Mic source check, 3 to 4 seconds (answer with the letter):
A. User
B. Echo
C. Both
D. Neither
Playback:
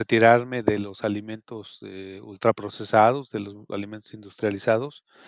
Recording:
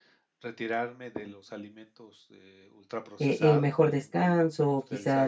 C